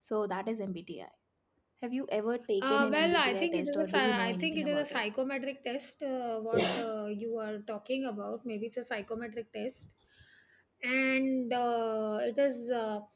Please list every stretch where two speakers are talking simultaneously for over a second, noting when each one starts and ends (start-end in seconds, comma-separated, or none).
2.6-5.0